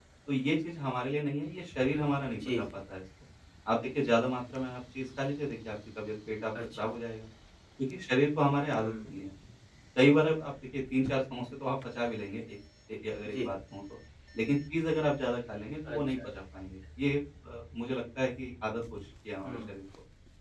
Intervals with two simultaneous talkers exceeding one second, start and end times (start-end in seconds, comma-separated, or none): none